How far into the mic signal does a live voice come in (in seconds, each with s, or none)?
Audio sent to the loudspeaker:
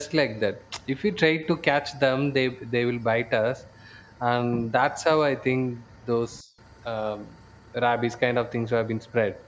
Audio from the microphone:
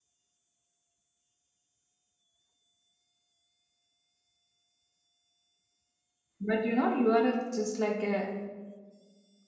6.4 s